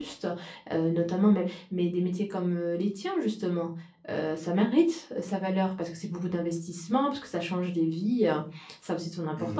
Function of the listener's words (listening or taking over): taking over